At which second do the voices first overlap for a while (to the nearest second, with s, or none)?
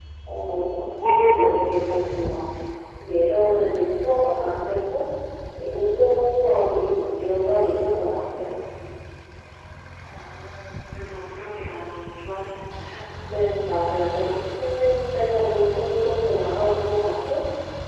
none